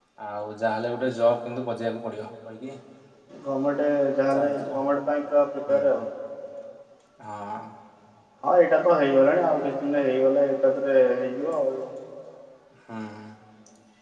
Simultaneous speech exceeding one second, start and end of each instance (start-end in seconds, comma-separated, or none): none